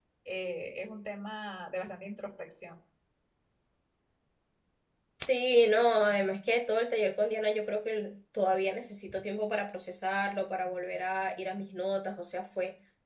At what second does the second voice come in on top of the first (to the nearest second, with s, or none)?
none